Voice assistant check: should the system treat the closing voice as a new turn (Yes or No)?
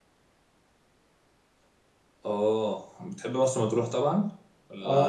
Yes